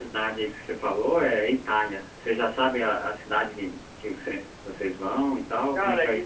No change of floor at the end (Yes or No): No